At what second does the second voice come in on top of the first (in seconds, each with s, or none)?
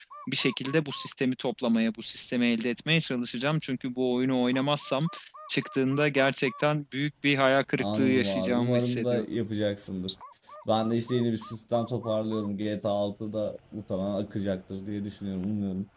7.8 s